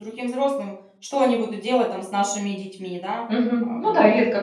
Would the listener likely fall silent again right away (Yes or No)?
No